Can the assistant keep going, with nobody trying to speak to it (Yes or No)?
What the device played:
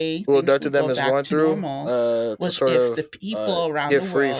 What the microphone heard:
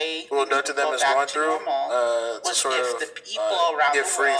Yes